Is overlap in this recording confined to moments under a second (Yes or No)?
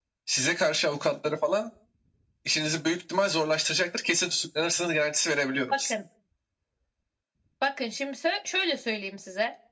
Yes